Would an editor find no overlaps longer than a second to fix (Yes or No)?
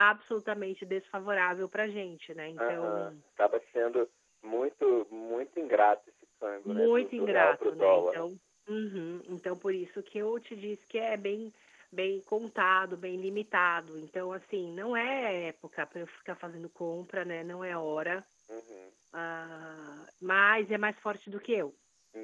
No